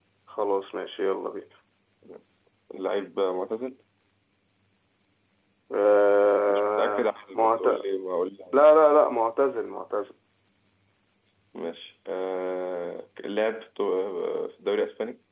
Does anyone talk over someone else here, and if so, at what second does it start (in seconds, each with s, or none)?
6.5 s